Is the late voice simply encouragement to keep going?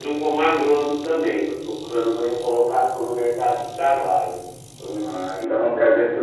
No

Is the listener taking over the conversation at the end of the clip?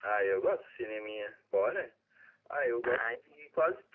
No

